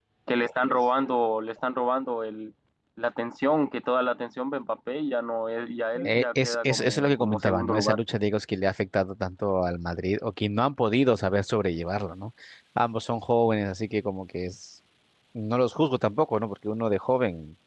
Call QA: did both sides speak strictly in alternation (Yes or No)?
No